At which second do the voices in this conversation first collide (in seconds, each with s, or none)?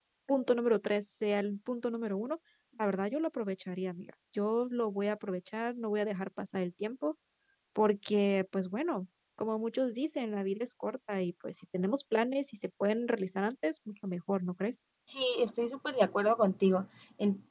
none